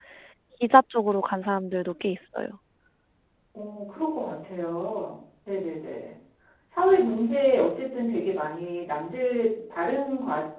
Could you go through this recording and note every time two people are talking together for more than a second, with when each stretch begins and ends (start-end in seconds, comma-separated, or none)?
none